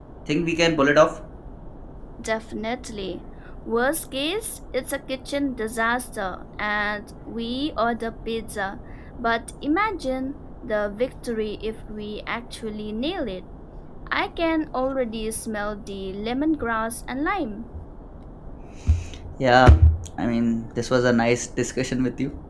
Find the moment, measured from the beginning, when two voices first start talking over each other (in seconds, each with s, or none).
none